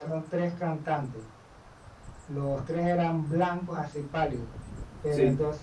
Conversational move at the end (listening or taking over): listening